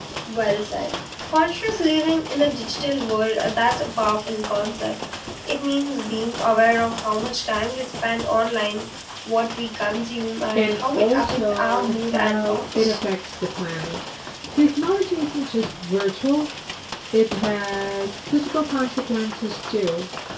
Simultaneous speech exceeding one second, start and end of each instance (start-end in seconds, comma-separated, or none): 10.6-13.0